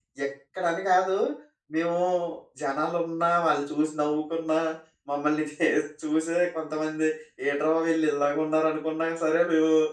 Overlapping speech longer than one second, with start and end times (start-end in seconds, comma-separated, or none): none